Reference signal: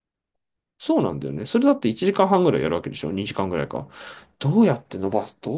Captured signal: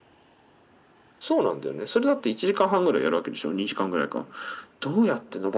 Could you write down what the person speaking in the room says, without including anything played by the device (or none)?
none